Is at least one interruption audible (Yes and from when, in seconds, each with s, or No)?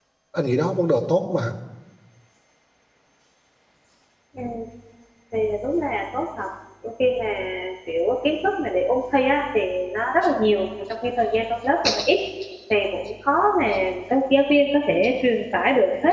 No